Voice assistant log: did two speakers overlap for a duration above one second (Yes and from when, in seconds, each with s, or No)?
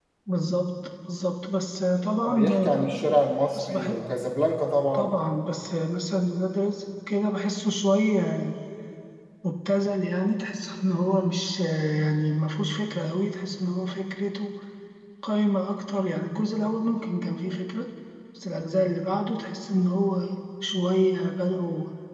No